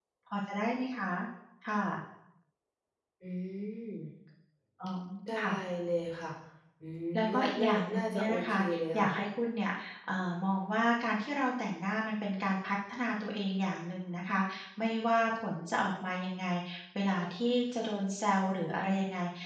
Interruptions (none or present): present